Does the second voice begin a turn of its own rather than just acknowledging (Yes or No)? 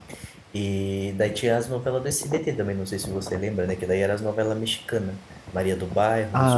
Yes